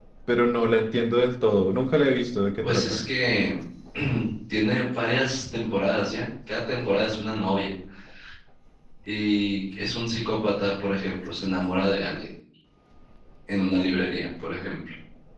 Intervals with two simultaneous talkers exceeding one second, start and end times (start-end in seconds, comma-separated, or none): none